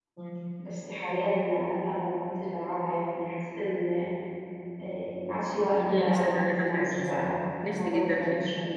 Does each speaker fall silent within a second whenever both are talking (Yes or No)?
No